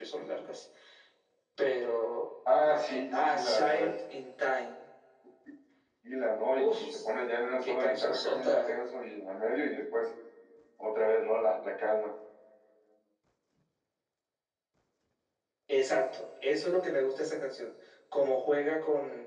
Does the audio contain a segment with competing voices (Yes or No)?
Yes